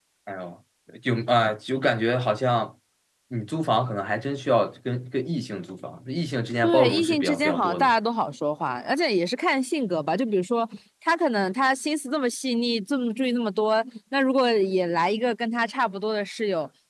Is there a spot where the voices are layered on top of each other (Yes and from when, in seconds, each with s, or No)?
Yes, from 6.6 s